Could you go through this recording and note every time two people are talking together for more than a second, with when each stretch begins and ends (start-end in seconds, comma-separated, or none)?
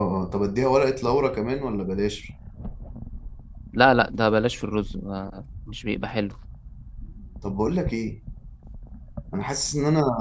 none